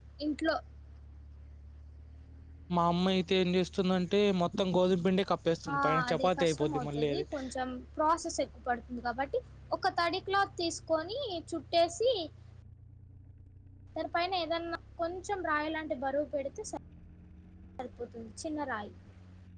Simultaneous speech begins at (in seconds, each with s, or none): 5.7 s